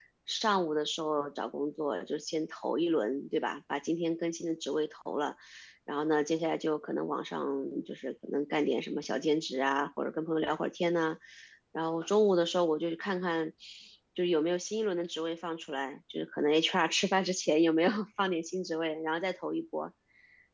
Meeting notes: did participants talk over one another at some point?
No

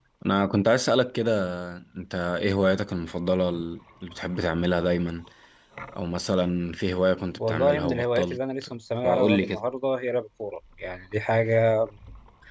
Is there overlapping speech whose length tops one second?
Yes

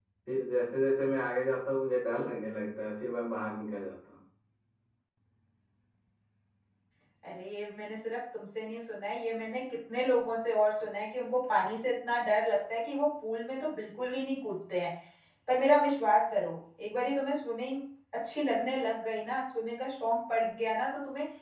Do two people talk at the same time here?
No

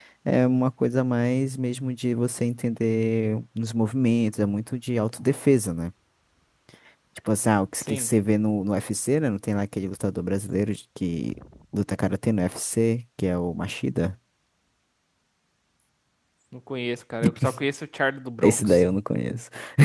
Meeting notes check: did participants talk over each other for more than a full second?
No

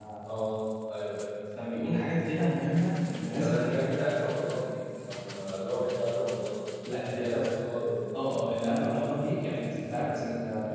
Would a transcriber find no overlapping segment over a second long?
Yes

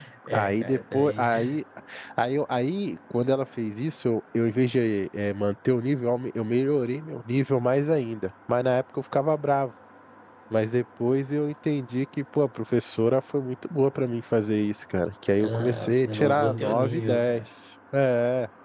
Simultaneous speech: Yes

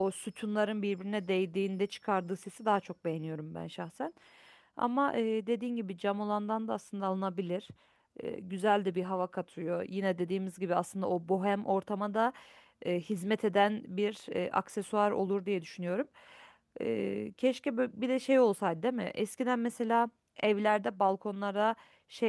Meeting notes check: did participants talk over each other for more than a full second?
No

